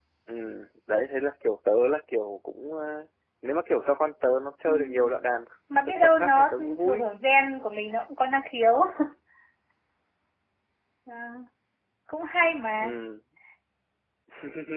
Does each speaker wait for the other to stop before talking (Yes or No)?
No